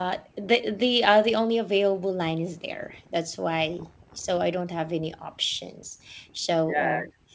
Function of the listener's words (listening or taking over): taking over